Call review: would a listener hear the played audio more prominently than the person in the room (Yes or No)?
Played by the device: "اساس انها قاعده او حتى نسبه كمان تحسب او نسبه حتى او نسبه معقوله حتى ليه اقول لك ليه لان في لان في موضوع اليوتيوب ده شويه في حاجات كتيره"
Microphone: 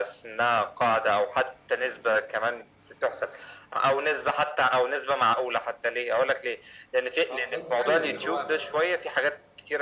Yes